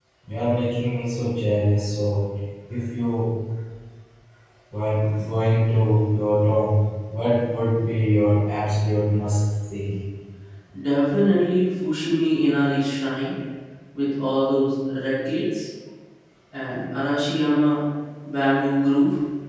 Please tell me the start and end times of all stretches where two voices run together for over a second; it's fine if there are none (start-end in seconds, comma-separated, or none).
none